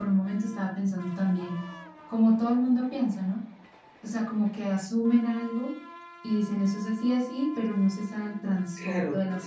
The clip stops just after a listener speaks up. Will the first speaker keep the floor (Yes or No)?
No